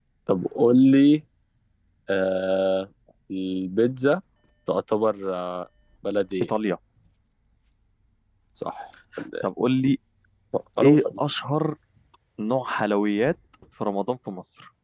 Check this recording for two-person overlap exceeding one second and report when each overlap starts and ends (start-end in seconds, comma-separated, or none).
none